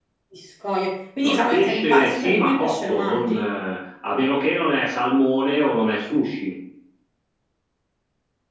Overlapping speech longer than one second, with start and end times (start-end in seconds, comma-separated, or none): 1.2-3.4